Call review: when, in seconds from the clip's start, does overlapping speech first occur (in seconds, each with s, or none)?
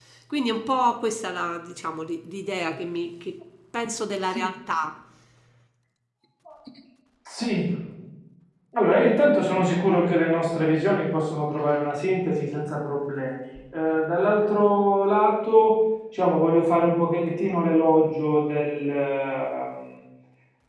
none